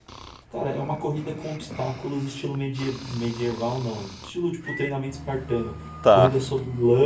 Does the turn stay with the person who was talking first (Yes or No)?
Yes